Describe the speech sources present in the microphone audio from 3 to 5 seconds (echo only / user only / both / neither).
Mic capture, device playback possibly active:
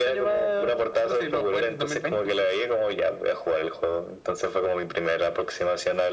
echo only